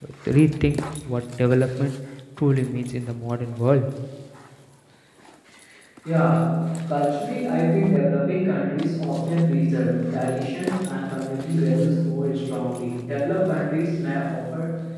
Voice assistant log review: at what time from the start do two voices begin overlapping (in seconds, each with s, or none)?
none